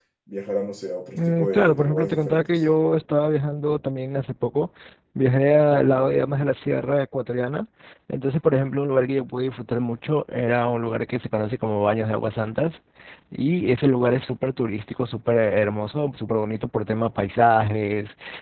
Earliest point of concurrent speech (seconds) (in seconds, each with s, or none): 1.1 s